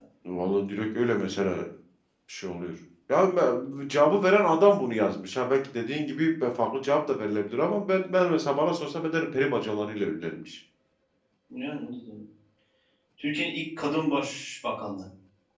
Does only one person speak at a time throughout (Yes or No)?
Yes